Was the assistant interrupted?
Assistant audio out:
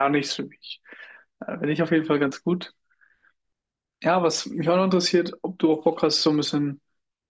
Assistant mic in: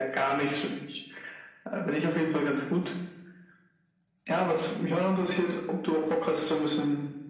No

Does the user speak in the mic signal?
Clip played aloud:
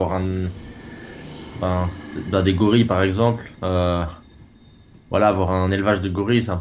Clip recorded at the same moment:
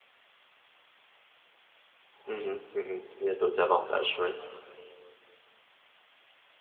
Yes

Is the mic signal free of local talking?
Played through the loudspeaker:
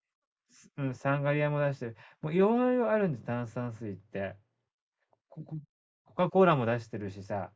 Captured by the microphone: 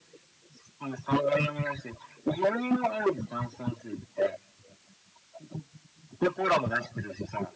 Yes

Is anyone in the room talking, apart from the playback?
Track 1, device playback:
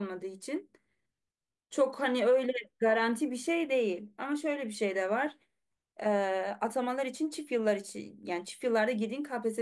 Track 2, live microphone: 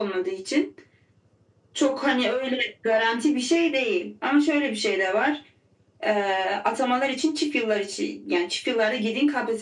No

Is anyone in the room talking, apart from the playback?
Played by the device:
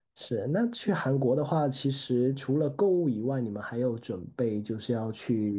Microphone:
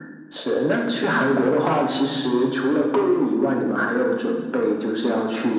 No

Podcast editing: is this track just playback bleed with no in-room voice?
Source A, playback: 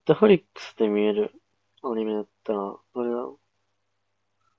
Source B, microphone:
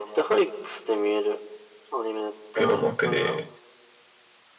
No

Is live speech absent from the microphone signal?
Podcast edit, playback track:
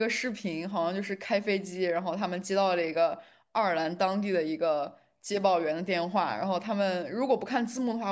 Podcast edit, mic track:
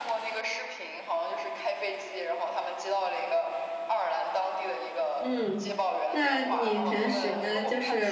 No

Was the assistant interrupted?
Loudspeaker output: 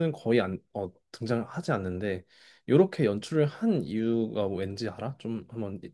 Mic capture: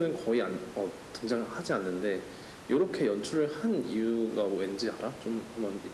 No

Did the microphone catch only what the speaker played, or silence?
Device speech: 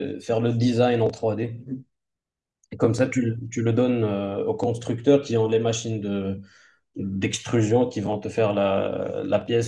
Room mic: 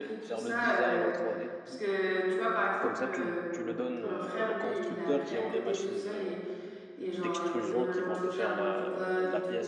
No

